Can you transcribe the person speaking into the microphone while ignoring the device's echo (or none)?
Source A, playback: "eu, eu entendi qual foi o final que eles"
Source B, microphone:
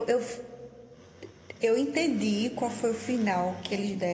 none